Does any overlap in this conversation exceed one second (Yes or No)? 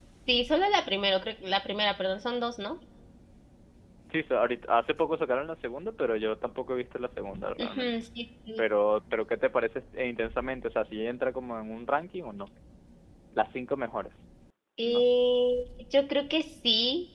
No